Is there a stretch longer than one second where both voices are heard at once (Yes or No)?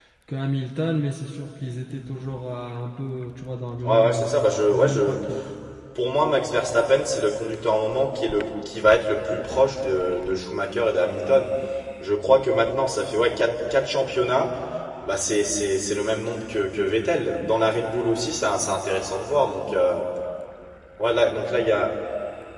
No